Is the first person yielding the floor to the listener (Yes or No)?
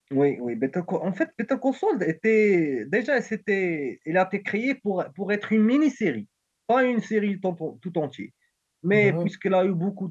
No